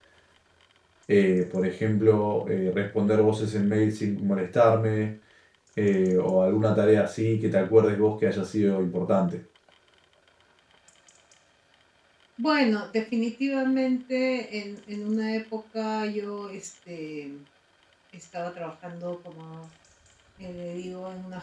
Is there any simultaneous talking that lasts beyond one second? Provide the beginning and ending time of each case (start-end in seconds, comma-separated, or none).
none